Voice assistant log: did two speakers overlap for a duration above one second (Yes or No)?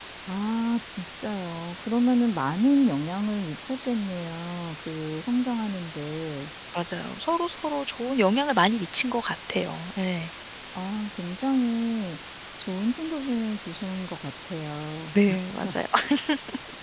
No